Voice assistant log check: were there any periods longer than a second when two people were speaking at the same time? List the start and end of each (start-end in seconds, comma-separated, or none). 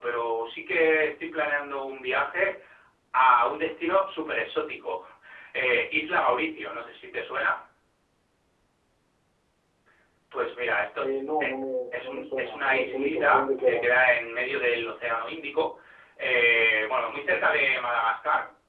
12.0-13.9